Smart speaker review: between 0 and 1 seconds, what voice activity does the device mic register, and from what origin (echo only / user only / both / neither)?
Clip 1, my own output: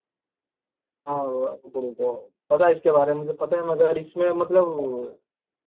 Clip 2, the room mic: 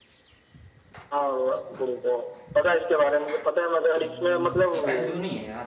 neither